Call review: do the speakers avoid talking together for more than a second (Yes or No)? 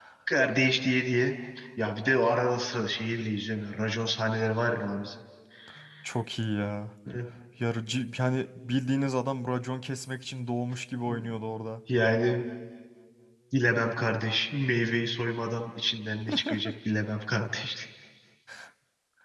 Yes